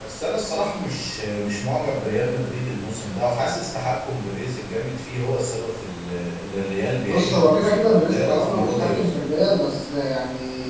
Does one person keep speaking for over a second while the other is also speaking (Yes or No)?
Yes